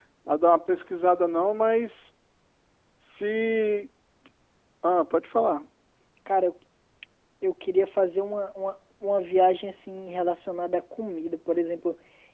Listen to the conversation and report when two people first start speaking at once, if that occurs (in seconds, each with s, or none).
none